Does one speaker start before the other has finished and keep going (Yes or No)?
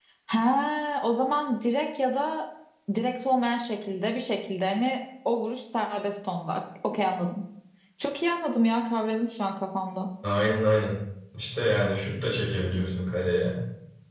No